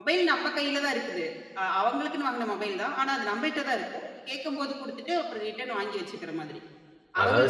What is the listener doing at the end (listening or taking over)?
taking over